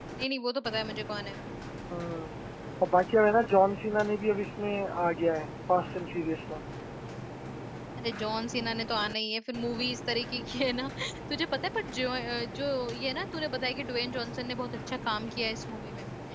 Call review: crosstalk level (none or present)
none